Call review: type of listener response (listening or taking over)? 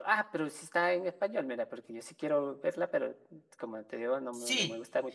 taking over